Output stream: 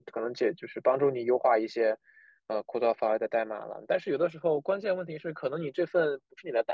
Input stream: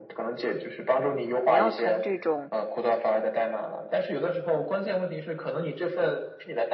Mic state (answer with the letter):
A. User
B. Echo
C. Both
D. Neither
C